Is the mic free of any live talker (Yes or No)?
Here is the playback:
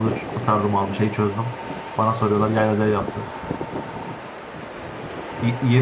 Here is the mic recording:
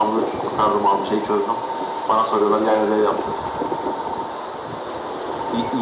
Yes